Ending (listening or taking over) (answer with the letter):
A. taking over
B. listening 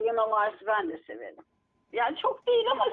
A